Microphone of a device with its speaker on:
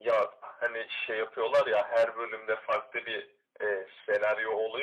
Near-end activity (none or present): none